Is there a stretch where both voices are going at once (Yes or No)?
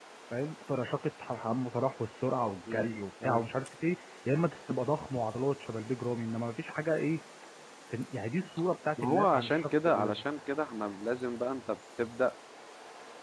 Yes